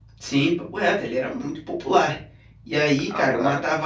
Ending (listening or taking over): listening